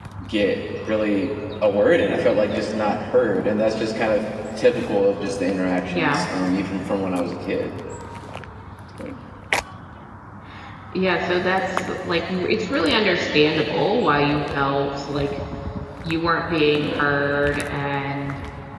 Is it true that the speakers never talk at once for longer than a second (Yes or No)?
Yes